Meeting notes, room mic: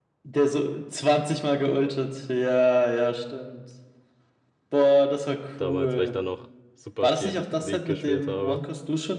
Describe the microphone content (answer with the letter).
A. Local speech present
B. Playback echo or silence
A